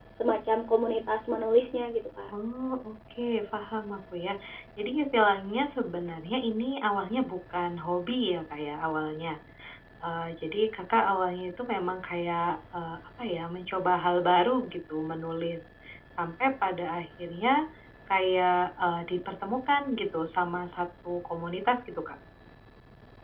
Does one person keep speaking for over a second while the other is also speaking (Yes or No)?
No